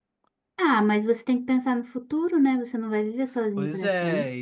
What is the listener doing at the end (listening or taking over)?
taking over